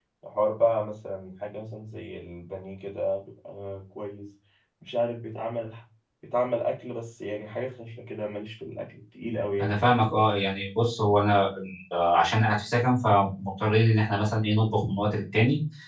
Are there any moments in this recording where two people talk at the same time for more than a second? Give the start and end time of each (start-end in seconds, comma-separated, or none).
none